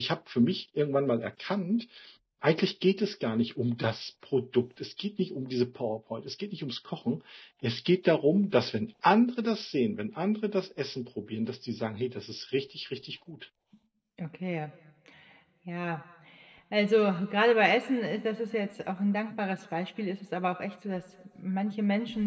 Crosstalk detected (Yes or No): No